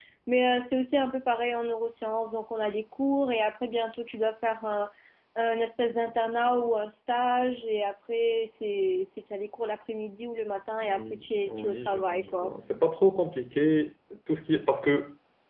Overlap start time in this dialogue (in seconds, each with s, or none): 10.8 s